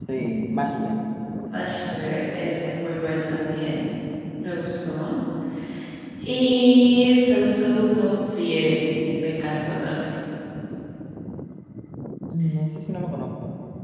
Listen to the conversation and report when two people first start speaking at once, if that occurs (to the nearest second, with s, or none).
none